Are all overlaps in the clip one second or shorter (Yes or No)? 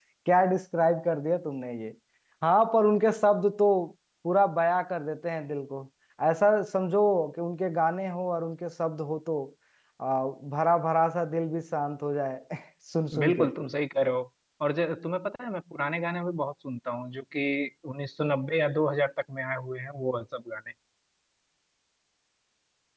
Yes